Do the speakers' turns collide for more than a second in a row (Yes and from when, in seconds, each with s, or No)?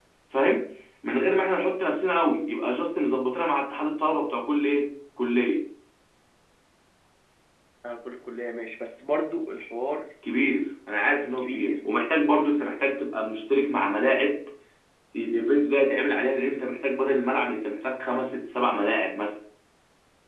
No